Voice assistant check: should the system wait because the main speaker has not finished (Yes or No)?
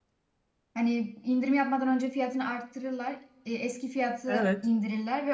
Yes